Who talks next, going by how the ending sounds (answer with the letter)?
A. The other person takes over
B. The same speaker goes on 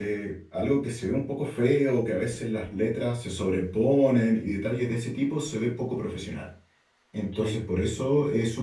B